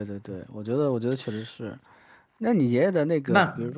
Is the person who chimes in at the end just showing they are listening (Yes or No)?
Yes